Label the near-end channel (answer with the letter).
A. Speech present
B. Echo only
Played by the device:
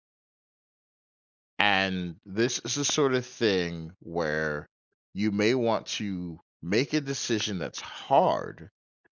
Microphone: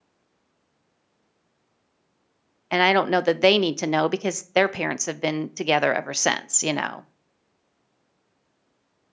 A